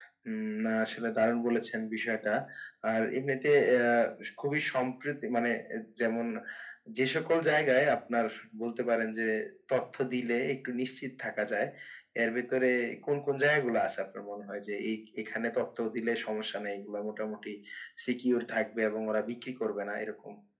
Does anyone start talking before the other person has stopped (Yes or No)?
No